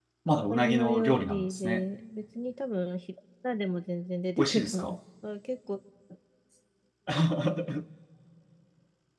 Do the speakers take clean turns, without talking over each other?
No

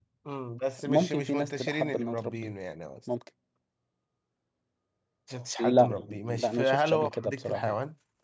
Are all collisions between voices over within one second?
No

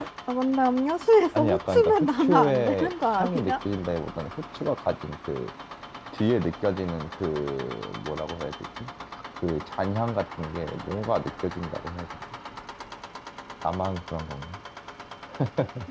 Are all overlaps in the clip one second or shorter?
No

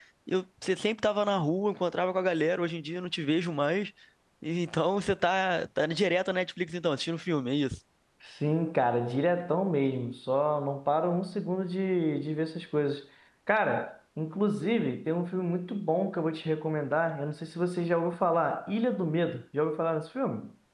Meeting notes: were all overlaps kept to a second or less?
Yes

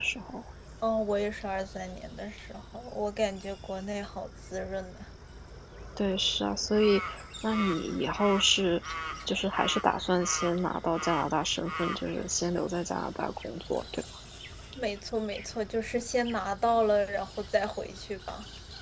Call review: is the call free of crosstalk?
Yes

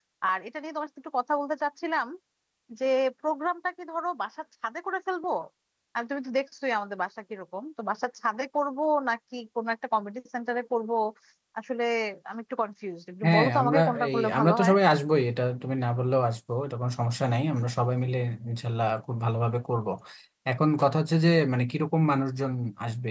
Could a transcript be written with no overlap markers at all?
No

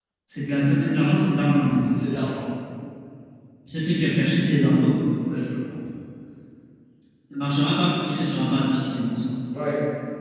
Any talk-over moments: No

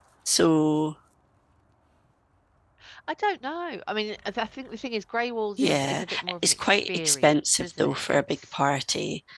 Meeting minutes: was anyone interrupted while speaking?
Yes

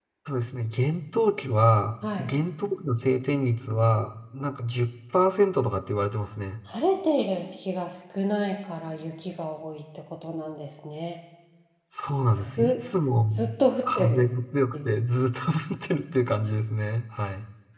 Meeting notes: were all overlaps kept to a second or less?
Yes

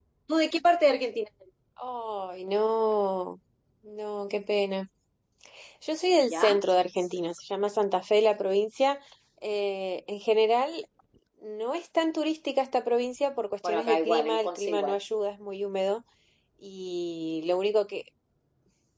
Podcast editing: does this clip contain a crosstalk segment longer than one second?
Yes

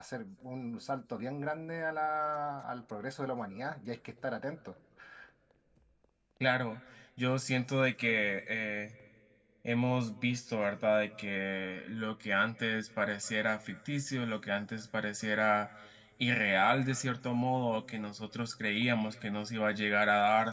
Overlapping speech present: No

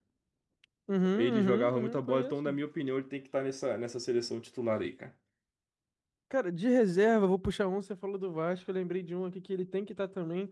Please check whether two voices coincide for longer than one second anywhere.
Yes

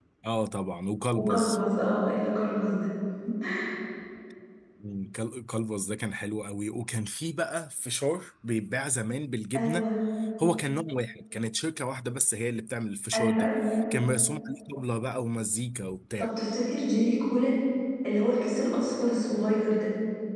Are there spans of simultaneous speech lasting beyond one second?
No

